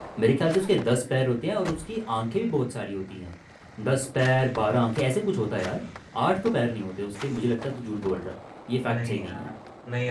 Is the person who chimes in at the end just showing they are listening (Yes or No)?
No